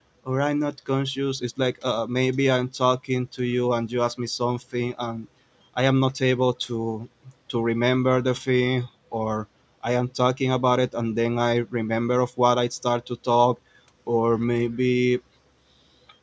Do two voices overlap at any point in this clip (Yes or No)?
No